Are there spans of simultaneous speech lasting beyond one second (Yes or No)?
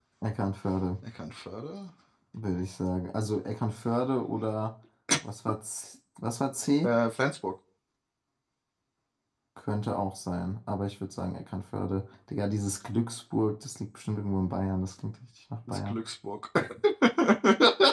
No